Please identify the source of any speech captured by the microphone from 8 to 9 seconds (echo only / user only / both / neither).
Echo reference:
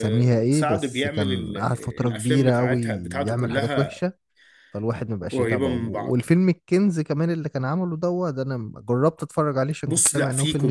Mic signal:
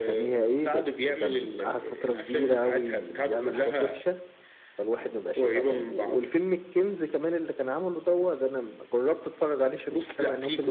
echo only